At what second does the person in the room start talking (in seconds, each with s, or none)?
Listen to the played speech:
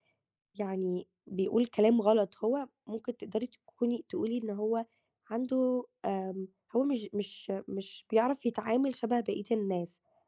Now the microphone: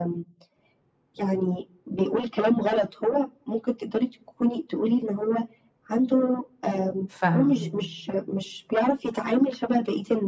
7.1 s